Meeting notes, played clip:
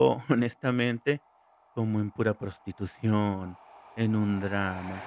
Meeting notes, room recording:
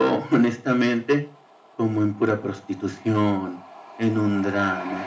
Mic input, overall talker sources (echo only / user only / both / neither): echo only